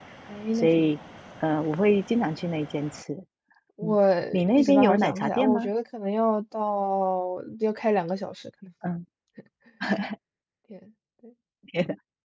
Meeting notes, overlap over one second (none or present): present